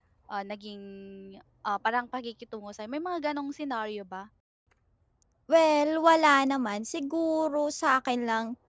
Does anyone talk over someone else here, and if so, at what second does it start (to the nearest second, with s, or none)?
none